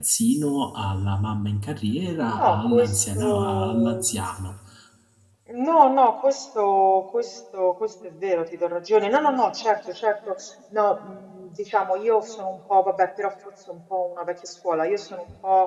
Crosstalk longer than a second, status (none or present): present